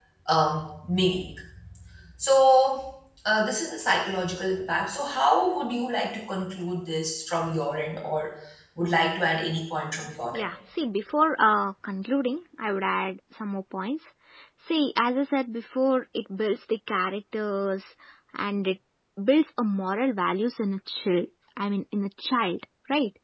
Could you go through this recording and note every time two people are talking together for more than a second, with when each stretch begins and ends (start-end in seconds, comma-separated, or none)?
none